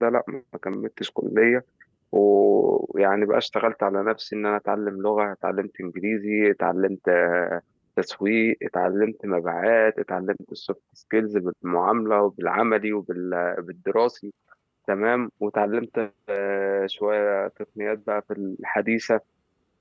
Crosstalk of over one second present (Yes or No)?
No